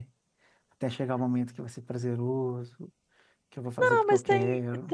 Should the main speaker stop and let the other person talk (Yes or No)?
Yes